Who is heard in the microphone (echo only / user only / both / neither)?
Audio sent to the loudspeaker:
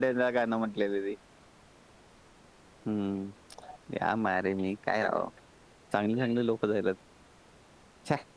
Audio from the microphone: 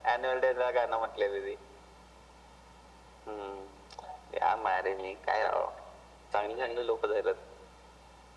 echo only